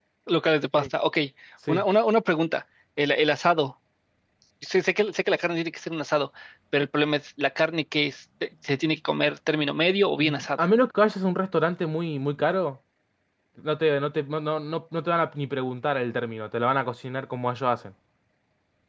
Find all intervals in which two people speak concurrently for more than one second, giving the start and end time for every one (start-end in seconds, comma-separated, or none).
none